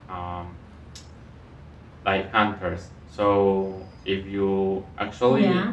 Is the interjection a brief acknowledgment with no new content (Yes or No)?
Yes